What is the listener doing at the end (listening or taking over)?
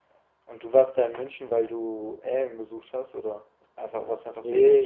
taking over